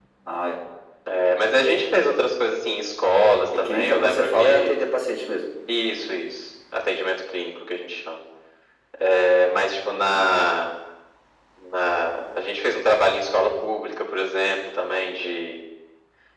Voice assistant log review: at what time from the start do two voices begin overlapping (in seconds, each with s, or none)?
3.5 s